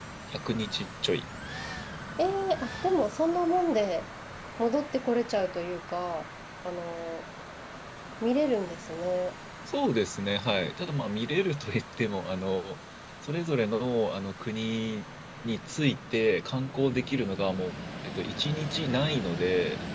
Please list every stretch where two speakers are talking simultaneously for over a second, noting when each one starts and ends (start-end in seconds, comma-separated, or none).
none